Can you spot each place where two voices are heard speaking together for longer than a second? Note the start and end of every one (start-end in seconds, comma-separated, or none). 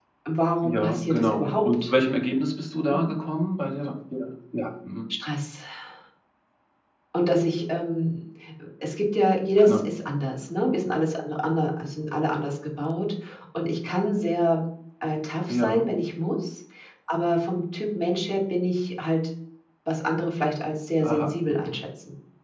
0.6-1.9